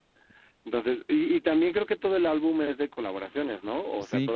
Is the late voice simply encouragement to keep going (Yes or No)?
No